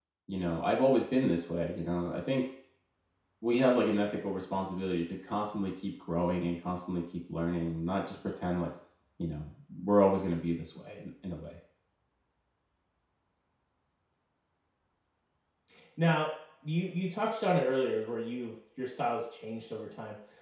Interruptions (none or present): none